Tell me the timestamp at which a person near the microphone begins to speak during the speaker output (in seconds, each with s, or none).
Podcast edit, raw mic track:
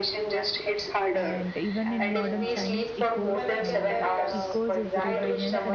1.1 s